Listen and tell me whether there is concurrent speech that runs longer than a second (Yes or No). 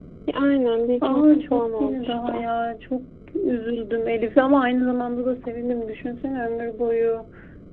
Yes